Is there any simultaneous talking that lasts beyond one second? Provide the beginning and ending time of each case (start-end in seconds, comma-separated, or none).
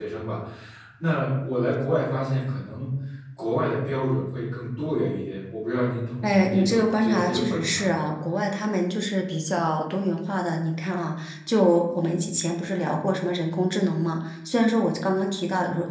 6.2-7.8